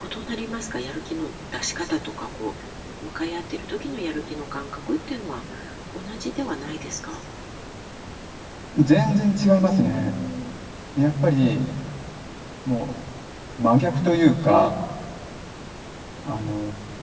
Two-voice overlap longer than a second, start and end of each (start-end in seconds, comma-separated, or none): none